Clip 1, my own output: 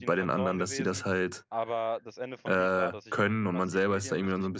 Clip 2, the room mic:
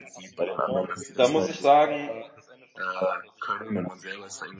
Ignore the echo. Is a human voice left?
Yes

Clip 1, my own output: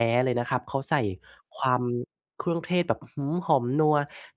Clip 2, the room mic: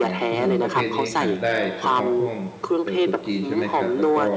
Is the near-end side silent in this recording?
No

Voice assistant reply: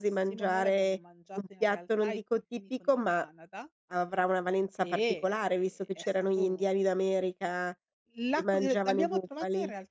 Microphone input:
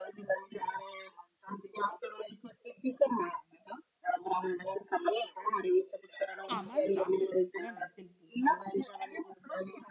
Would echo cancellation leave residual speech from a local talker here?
Yes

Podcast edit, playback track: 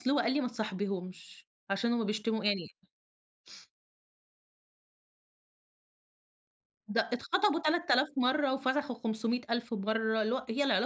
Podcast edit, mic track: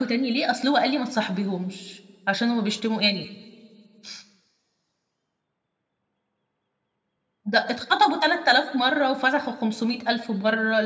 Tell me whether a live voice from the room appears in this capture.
No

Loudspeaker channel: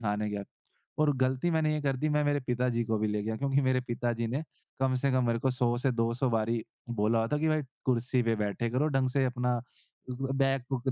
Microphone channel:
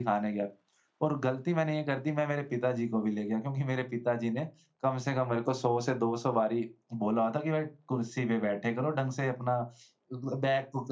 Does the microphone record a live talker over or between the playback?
No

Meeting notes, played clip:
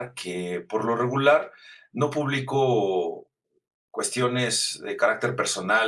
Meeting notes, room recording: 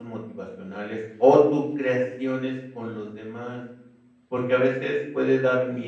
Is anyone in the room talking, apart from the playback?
Yes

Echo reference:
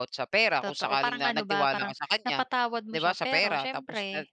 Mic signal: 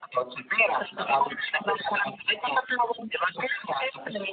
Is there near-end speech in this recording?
Yes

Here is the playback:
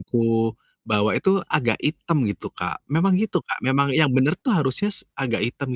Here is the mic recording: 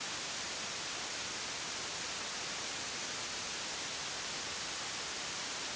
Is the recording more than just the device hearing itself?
No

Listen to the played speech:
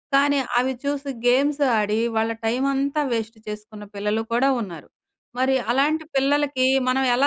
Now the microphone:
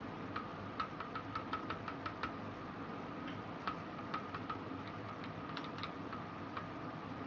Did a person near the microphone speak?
No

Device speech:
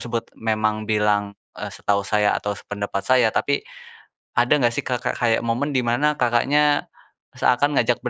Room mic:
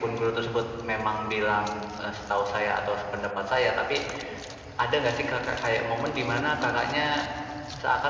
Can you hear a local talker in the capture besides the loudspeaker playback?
No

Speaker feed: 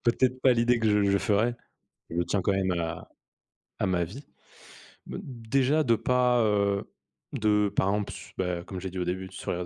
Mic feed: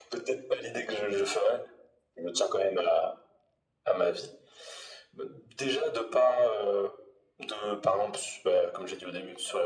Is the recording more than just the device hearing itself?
No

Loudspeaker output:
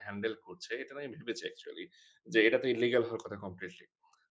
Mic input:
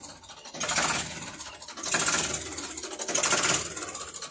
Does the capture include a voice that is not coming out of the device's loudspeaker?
No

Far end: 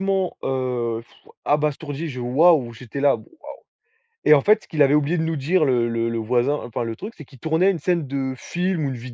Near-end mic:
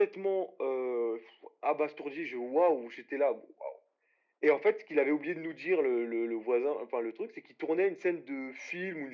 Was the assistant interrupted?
No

